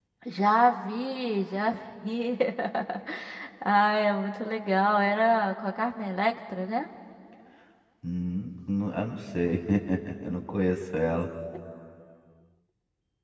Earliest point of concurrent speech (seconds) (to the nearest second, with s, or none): none